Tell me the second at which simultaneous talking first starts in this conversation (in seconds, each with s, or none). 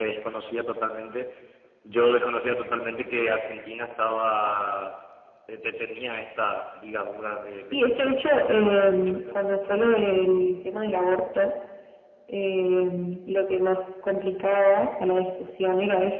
7.7 s